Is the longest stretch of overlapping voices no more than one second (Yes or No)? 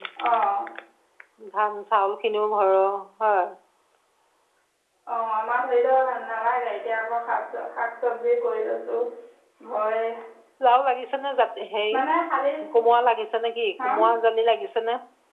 Yes